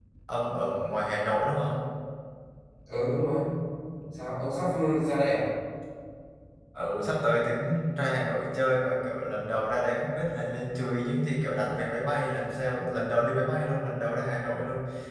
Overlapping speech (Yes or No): No